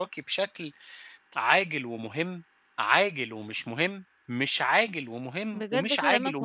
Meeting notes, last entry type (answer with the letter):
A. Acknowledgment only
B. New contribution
B